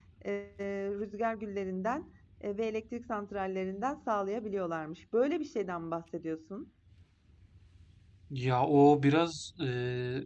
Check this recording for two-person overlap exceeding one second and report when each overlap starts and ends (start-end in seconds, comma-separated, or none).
none